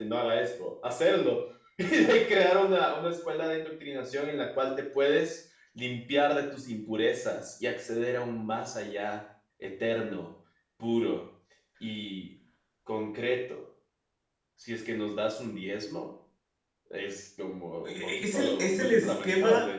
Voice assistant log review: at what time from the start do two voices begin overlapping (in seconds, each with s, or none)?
17.8 s